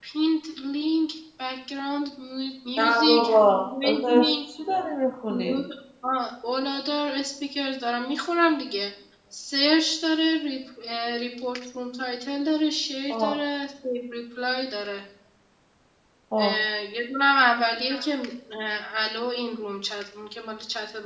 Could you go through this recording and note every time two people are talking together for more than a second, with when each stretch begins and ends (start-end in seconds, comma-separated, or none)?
2.8-4.3